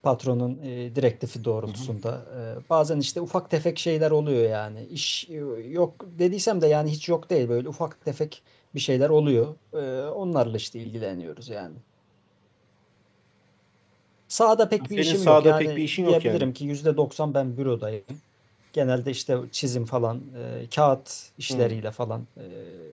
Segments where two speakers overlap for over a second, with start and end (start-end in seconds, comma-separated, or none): 14.9-16.5